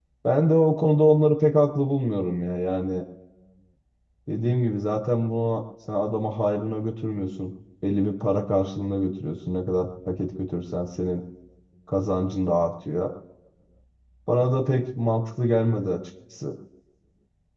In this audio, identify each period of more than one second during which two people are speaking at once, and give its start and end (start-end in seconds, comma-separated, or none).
none